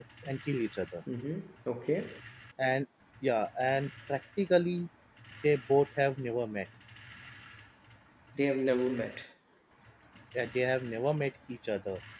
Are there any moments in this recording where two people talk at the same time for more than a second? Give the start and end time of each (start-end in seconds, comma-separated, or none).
none